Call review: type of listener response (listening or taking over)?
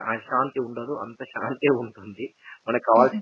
taking over